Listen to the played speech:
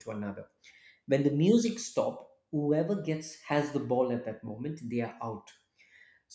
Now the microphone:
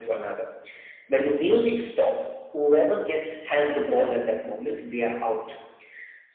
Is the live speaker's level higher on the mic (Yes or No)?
No